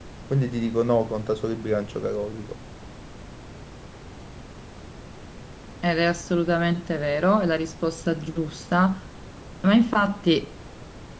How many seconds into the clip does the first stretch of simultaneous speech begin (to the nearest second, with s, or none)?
none